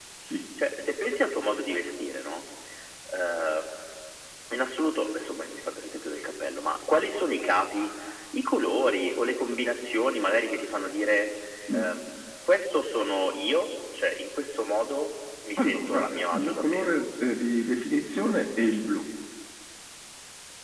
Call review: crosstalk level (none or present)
present